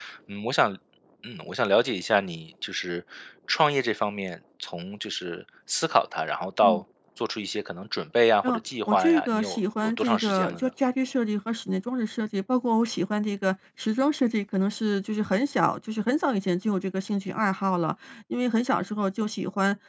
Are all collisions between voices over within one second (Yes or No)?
No